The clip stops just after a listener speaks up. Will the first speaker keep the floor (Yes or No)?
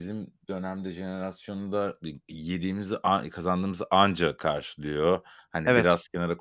Yes